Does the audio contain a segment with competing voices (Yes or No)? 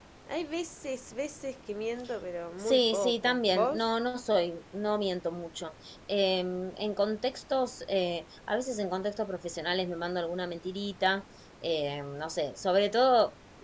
Yes